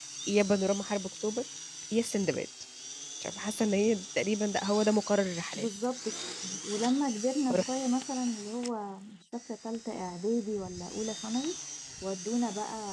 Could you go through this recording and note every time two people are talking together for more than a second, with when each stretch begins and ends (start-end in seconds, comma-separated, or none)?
none